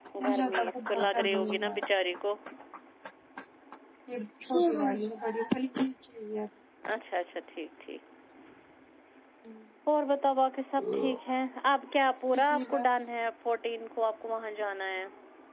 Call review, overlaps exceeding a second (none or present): present